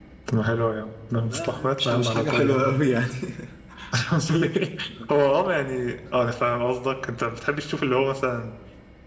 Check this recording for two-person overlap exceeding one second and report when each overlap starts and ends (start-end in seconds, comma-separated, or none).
1.3-2.6